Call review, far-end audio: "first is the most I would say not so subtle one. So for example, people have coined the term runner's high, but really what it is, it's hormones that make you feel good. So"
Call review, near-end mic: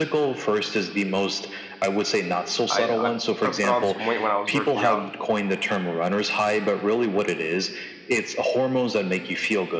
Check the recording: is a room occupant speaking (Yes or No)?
Yes